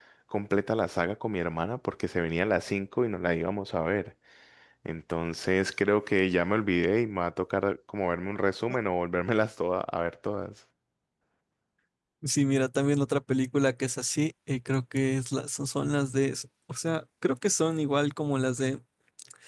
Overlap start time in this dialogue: none

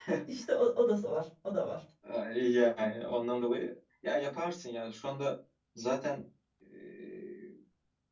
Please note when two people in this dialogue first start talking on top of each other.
none

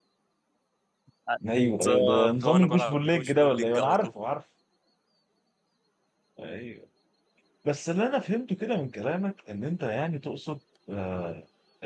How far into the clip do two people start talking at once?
1.5 s

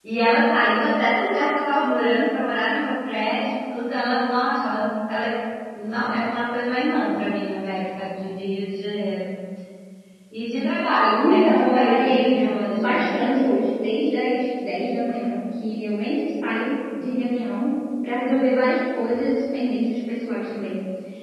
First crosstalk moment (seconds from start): 11.2 s

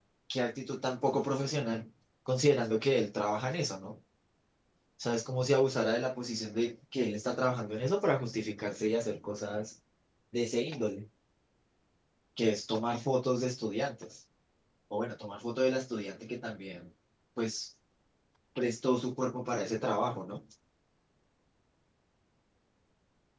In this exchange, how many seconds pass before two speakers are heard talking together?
none

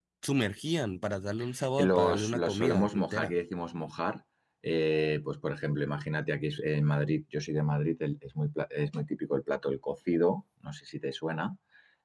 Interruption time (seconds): 1.6 s

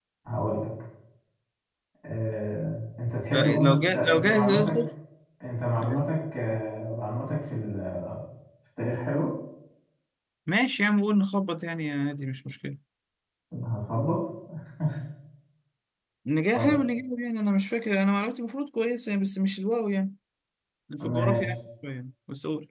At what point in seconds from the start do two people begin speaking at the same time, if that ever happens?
3.3 s

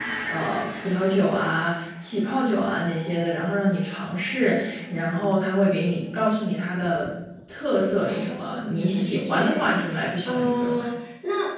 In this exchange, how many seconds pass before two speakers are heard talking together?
8.1 s

